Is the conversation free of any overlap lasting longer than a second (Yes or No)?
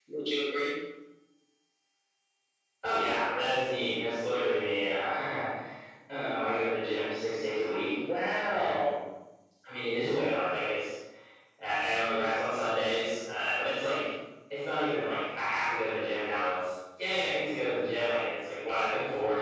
Yes